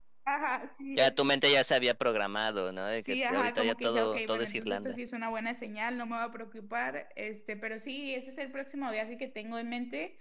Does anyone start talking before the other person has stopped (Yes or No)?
Yes